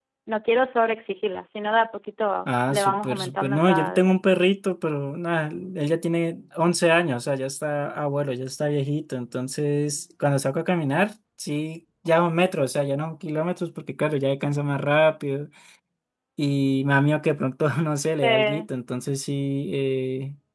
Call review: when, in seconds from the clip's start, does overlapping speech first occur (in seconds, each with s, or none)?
2.7 s